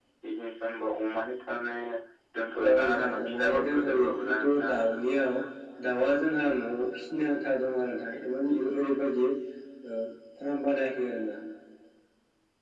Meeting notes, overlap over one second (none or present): present